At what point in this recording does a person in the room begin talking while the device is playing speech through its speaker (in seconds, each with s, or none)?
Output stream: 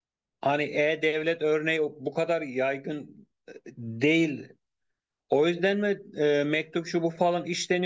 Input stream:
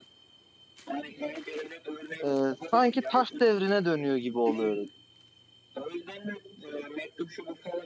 2.2 s